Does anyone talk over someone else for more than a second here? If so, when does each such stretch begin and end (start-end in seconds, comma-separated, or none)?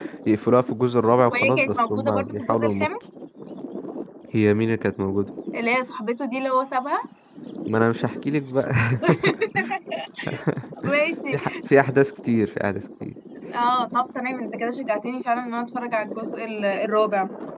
1.3-2.9